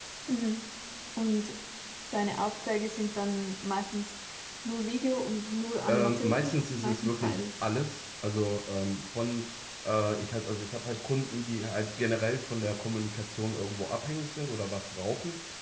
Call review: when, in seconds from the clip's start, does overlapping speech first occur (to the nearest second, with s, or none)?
6 s